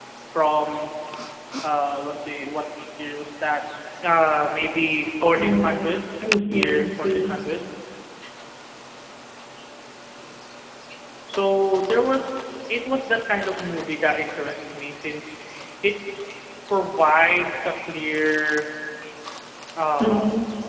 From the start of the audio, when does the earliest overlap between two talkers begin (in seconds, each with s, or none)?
5.2 s